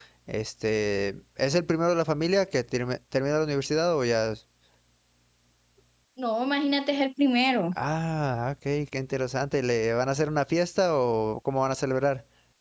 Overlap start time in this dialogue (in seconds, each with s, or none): none